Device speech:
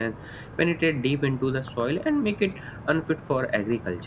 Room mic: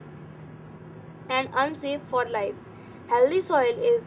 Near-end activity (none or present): present